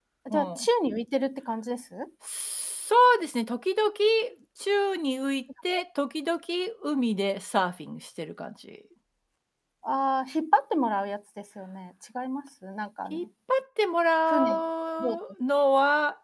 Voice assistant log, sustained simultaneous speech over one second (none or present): none